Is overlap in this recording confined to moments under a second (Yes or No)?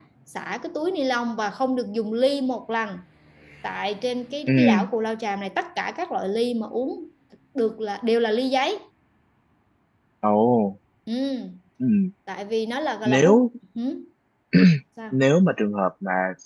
Yes